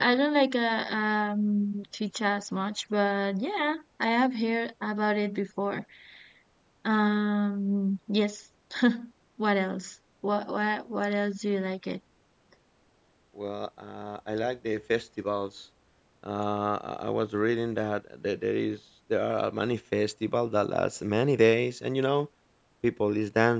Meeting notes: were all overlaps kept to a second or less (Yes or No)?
Yes